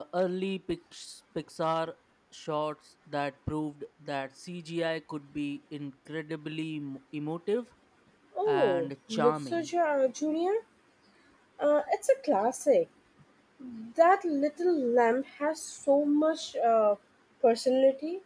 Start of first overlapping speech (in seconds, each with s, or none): 8.4 s